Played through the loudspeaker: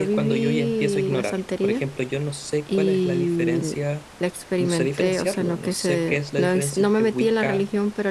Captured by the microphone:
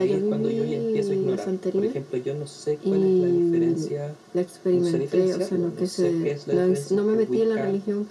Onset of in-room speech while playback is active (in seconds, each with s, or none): none